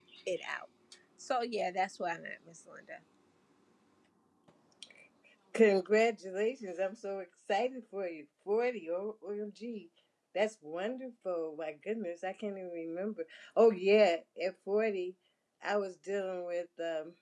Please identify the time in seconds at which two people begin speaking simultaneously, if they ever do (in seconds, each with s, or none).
none